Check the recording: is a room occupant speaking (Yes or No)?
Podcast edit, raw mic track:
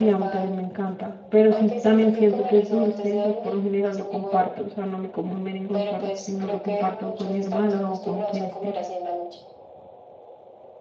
Yes